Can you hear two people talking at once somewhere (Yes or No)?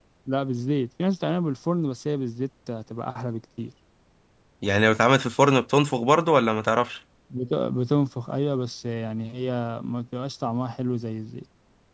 No